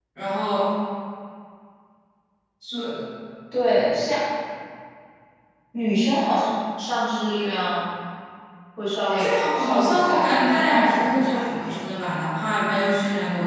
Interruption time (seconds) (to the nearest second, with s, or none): 9 s